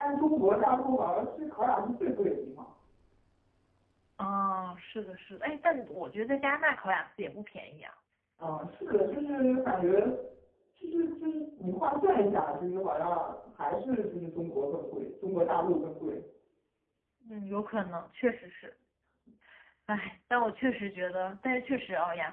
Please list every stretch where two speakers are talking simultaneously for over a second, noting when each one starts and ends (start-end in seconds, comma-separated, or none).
none